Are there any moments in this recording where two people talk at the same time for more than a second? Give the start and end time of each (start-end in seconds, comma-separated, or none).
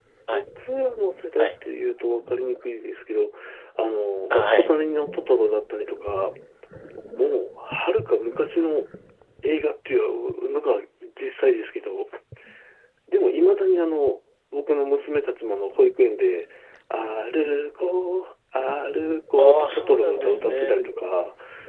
19.4-20.7